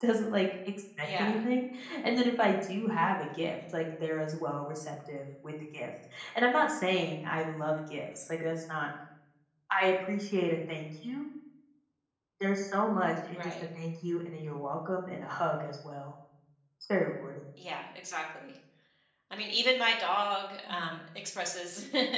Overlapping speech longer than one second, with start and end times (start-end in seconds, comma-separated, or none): none